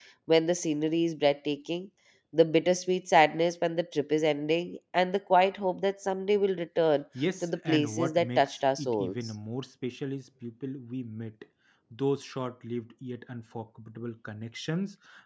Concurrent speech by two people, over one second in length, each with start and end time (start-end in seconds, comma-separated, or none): 7.4-9.2